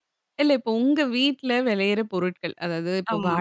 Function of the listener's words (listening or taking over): listening